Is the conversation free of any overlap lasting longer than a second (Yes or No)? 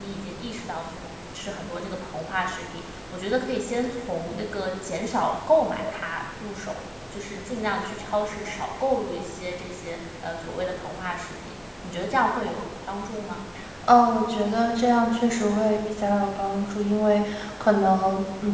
Yes